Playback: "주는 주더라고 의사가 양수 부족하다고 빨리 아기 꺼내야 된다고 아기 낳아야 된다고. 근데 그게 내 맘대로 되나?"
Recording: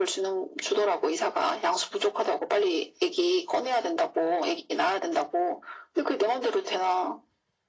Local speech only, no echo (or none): none